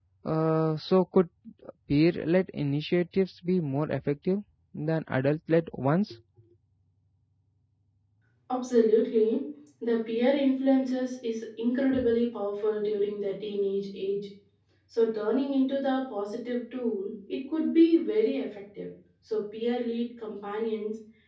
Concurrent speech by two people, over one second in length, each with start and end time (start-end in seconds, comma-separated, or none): none